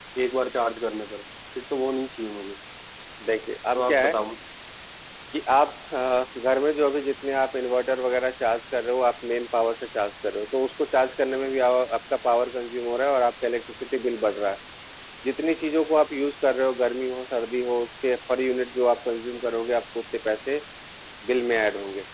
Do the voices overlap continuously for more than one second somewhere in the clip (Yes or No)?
No